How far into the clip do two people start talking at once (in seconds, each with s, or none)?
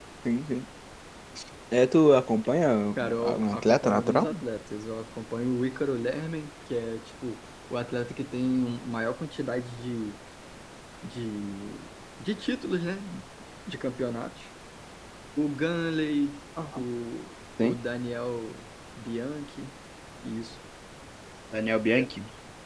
3.0 s